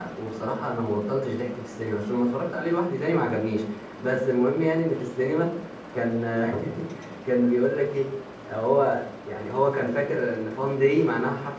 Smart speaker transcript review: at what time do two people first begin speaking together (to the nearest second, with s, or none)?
none